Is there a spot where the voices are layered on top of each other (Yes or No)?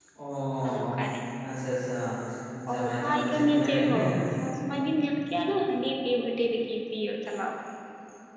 Yes